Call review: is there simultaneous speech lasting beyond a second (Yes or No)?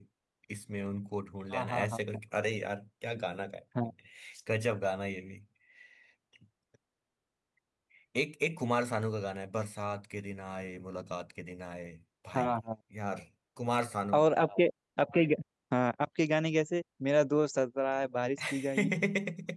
No